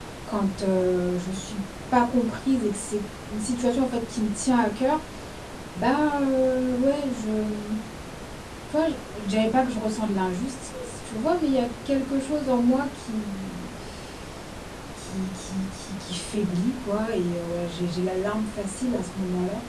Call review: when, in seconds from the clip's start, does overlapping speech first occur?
none

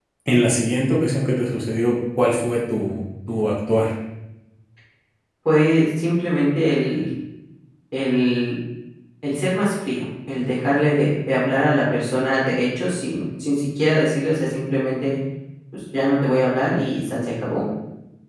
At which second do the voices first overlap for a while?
none

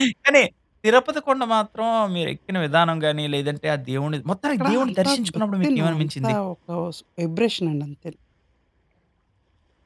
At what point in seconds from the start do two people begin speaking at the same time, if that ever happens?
5 s

